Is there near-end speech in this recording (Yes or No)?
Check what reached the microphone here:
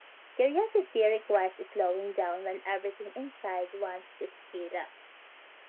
No